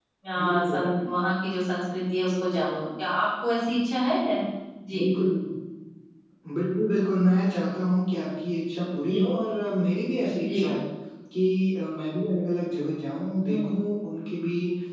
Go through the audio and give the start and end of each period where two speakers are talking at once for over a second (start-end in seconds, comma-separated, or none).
none